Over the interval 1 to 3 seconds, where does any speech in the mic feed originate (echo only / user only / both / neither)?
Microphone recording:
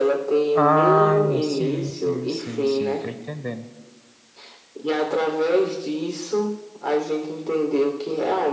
both